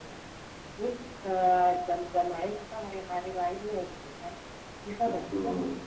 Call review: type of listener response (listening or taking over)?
listening